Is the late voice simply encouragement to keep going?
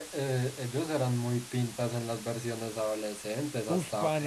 No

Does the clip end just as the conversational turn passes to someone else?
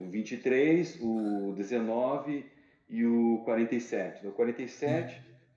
Yes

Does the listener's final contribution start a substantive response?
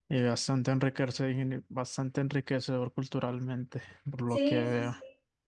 Yes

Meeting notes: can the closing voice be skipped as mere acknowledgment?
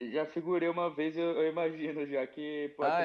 Yes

